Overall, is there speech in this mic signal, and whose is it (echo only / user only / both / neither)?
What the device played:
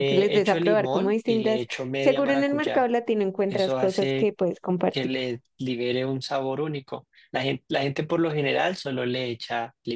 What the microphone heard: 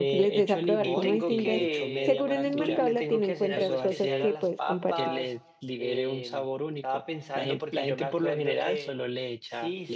both